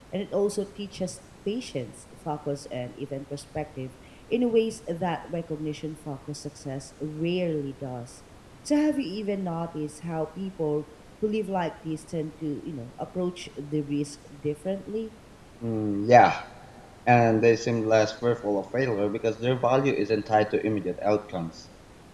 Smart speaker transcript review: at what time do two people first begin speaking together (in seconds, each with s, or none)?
none